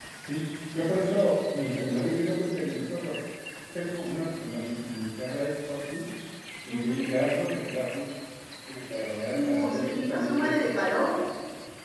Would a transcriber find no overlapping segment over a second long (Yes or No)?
No